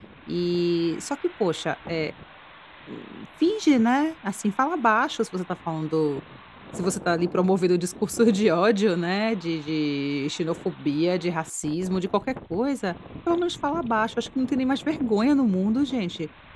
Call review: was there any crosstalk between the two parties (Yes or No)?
No